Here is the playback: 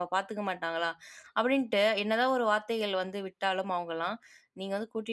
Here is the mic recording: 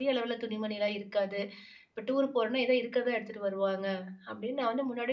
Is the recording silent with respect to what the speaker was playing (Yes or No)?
Yes